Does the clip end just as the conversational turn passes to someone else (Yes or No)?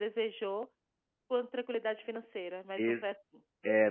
Yes